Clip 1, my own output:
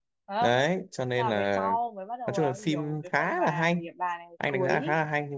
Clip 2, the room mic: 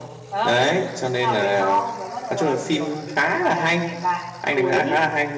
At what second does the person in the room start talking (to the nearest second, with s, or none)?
none